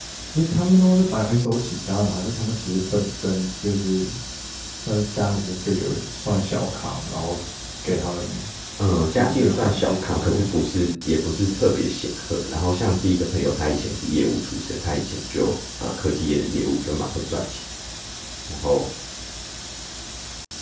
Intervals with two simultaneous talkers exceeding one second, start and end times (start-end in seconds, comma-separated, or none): 9.1-10.4